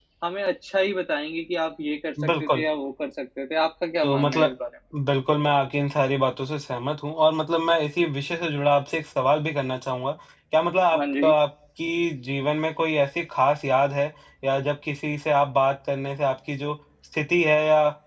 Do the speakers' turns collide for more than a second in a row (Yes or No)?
No